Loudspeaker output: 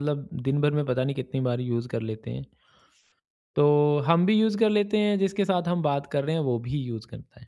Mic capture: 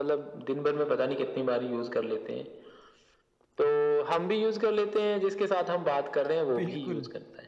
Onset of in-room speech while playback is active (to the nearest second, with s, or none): 7 s